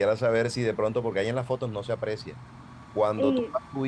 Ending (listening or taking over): listening